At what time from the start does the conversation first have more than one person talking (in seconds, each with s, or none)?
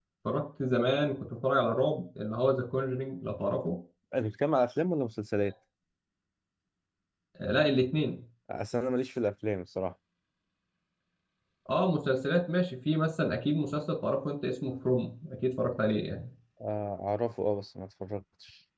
none